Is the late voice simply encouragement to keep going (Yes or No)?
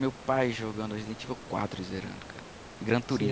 No